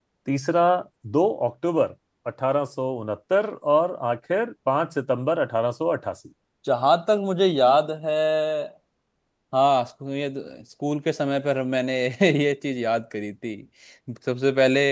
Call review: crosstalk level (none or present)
none